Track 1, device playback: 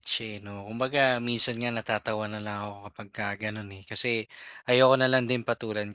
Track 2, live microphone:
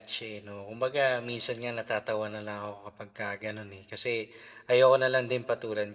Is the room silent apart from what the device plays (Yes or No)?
Yes